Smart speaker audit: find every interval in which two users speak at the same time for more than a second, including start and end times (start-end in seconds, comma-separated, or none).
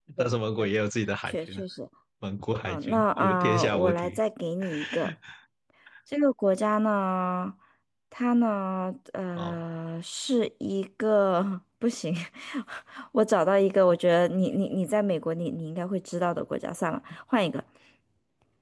2.6-4.2